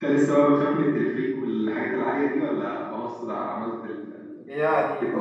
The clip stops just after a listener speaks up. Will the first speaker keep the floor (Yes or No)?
No